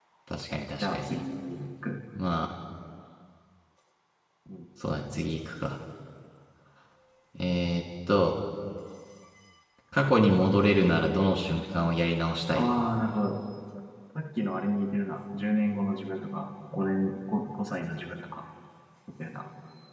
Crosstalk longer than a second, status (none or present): none